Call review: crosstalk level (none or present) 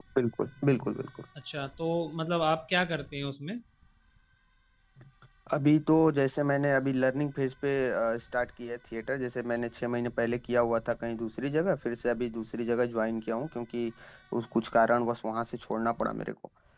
none